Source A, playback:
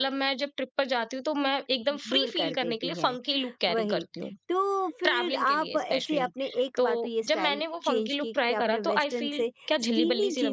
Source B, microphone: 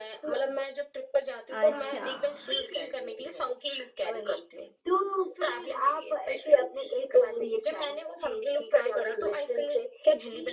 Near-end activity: present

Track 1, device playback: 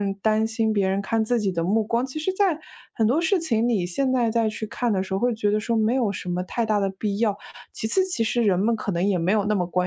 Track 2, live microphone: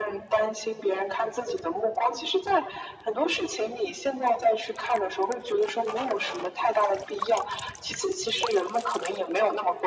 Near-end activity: none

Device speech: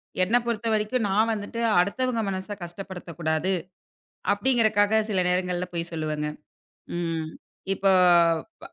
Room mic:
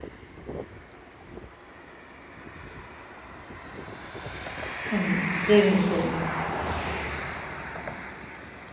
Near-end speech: present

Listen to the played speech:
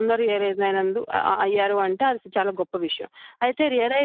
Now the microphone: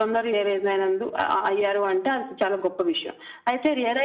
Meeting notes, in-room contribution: none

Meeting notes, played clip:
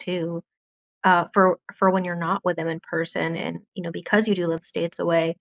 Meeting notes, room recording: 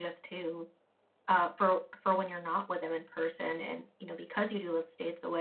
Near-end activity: none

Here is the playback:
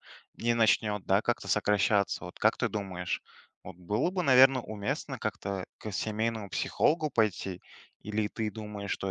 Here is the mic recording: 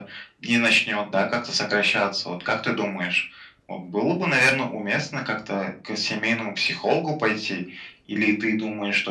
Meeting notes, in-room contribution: none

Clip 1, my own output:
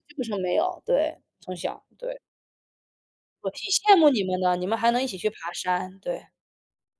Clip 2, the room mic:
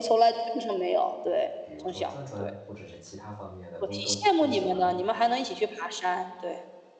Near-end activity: present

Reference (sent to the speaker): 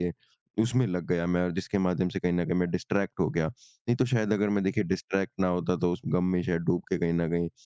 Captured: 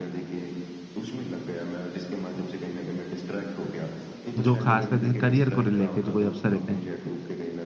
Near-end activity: present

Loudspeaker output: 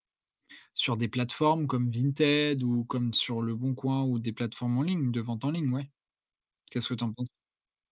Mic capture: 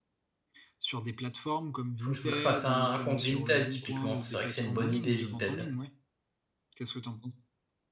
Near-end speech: present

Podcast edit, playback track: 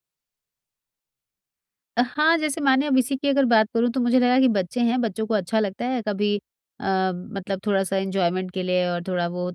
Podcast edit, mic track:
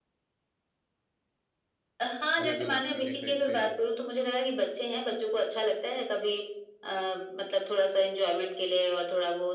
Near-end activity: present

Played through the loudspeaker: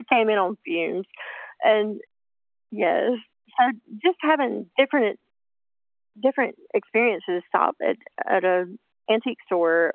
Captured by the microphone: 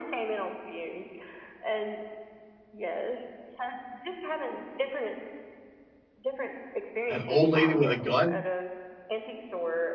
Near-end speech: present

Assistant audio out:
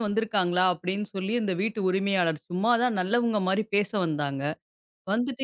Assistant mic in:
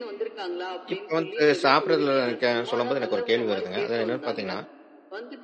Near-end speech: present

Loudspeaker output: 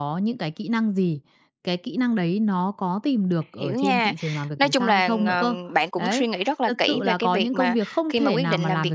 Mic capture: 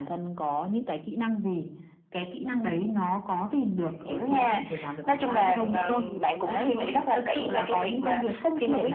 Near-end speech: present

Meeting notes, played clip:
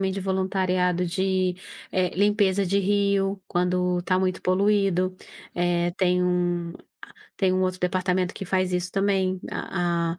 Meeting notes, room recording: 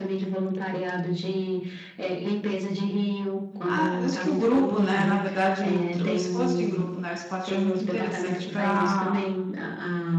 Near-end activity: present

